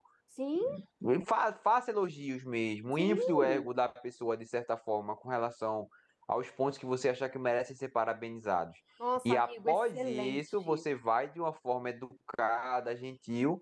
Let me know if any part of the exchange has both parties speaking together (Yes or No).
Yes